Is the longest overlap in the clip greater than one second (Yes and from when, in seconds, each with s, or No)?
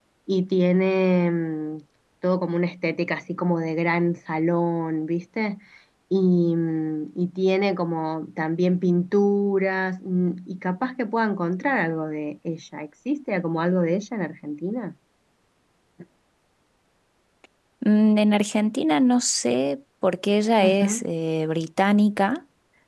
No